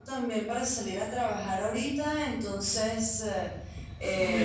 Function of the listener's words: listening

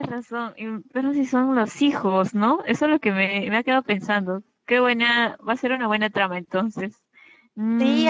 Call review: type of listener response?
taking over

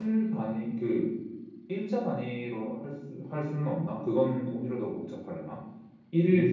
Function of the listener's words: listening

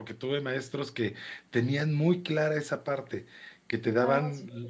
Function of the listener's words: listening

